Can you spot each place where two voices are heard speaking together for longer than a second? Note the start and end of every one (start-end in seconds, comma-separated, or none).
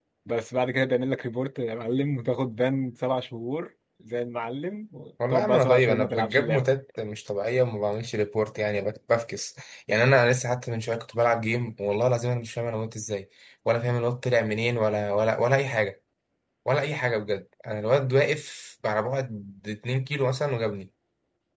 5.3-6.7